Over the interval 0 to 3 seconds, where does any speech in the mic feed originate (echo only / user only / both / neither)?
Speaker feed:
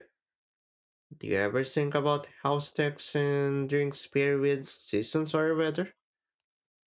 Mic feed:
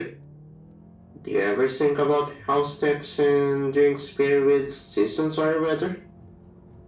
echo only